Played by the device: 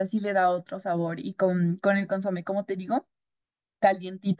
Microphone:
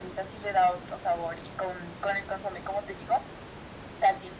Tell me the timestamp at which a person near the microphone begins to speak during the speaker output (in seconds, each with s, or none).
none